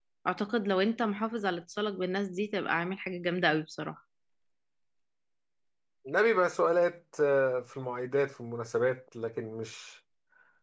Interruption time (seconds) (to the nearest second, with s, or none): none